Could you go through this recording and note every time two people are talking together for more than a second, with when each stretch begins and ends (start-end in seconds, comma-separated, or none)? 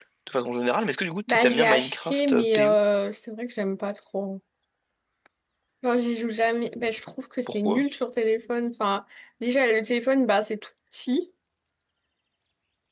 1.3-2.8